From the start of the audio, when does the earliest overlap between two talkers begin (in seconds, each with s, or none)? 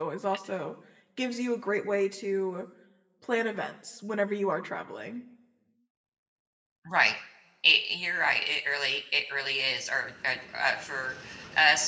none